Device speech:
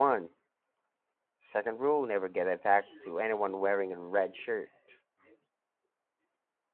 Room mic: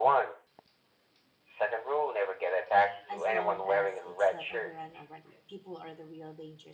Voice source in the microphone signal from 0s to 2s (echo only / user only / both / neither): echo only